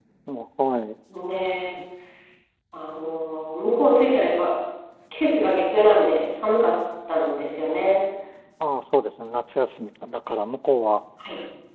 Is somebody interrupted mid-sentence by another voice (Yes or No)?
No